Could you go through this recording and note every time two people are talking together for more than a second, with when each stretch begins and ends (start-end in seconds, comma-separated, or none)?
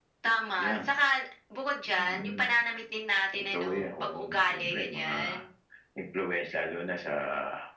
3.5-5.1